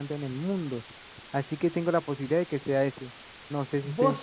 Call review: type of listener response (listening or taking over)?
taking over